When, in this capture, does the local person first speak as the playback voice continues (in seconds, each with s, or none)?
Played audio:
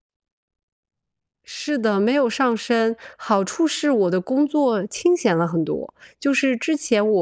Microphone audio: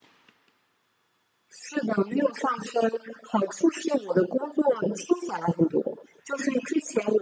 none